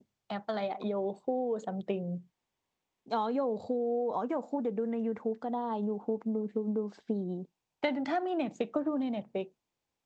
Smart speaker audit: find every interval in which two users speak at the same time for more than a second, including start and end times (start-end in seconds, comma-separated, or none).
none